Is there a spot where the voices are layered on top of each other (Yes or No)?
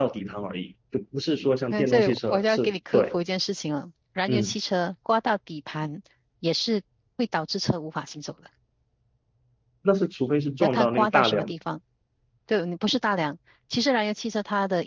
Yes